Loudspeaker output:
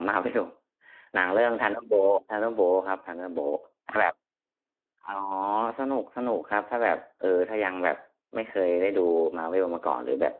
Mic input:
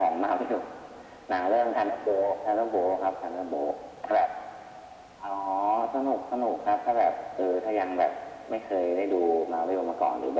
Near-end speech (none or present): none